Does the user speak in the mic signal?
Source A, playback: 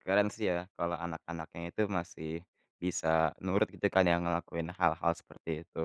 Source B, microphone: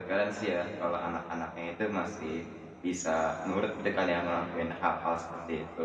No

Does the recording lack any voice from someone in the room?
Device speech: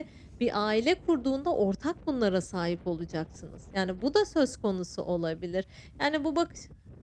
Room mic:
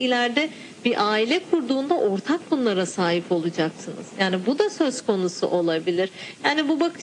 Yes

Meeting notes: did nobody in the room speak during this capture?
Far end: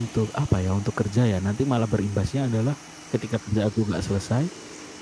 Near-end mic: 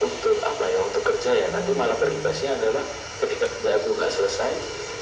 No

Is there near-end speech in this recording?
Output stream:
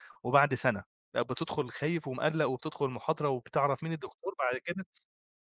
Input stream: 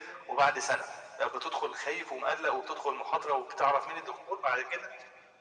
No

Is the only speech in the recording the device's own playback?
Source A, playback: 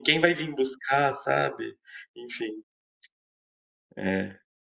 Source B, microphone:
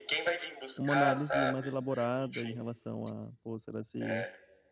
No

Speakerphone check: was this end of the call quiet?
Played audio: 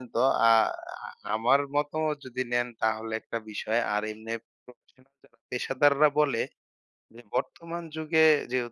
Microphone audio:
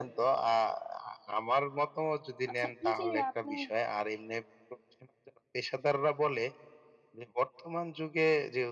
No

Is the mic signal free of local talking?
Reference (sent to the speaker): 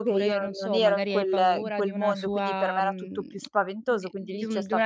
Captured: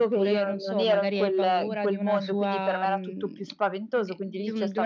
Yes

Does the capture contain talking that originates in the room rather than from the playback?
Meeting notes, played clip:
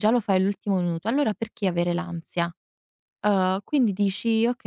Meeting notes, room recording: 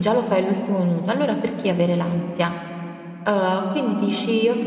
No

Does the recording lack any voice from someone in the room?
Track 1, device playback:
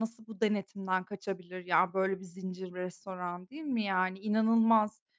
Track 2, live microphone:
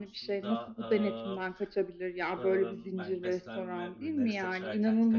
No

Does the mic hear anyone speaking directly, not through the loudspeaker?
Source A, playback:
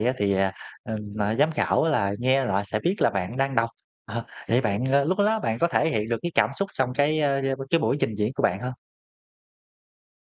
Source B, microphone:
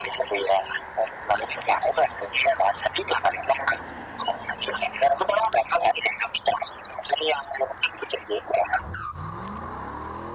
No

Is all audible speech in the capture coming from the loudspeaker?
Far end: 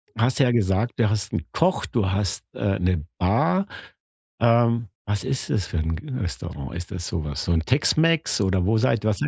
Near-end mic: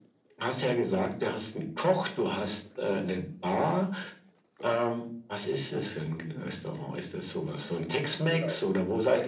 No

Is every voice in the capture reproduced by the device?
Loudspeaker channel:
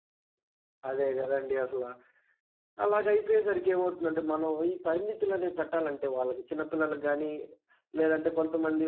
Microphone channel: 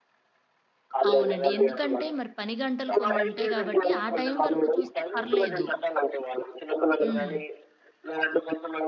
No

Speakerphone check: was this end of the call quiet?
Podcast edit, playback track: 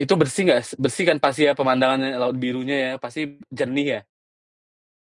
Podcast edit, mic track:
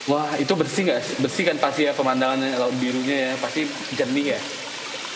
Yes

